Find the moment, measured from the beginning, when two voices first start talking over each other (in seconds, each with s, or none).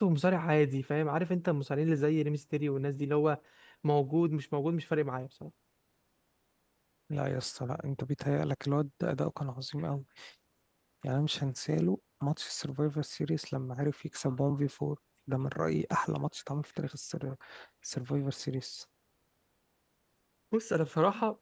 none